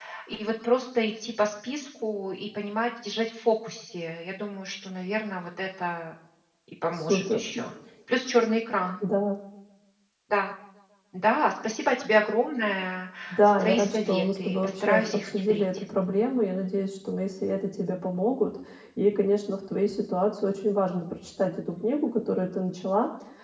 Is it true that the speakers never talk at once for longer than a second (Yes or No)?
No